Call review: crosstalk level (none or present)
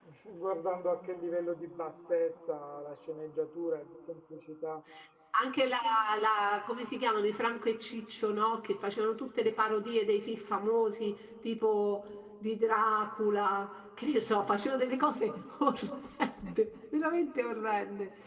none